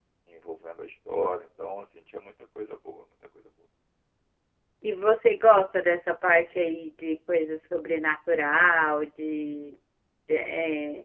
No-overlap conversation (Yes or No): Yes